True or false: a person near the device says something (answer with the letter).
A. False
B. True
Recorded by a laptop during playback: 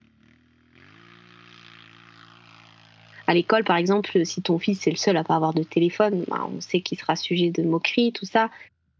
B